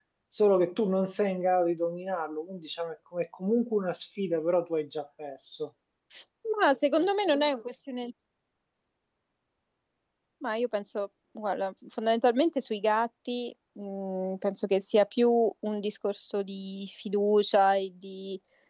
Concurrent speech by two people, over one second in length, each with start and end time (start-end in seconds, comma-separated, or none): none